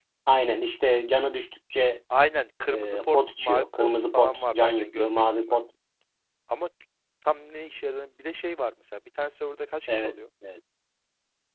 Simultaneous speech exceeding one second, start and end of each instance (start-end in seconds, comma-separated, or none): 2.7-5.6